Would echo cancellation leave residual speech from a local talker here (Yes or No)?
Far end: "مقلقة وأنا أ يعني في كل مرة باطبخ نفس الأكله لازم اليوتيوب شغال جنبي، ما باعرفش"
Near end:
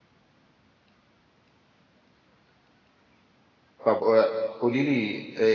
Yes